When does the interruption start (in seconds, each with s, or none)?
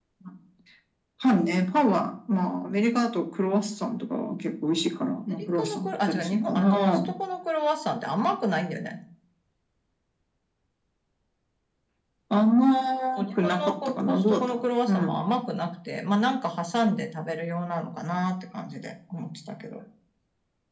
5.4 s